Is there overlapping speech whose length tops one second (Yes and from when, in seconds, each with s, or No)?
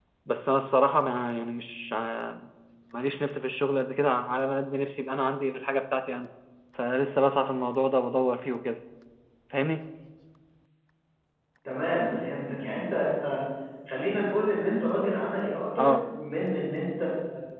No